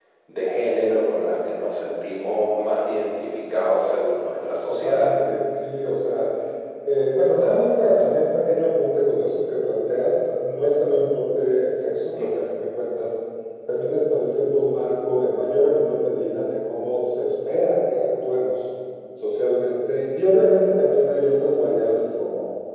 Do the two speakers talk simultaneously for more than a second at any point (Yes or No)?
No